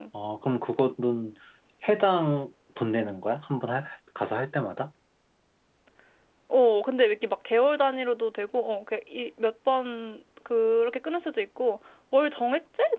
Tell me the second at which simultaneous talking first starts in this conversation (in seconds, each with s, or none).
none